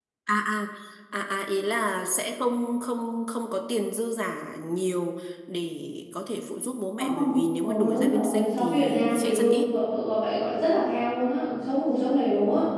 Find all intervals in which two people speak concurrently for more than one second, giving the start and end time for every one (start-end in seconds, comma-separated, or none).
7.0-9.7